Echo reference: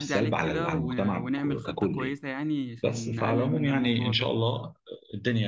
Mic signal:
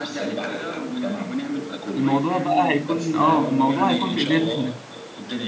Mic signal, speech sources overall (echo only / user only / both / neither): both